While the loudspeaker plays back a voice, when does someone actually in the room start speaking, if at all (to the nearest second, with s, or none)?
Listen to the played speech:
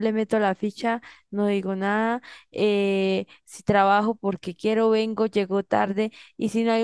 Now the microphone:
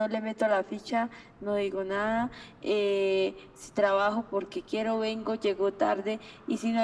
none